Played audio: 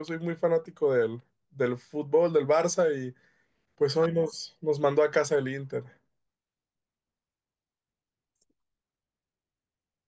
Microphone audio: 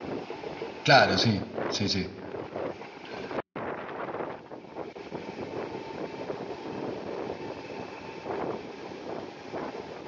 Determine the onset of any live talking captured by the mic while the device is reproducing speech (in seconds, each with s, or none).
0.8 s